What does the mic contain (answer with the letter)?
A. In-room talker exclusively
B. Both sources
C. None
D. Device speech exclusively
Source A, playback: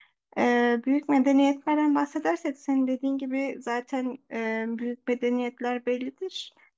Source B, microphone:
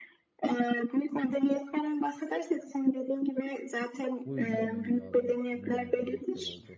B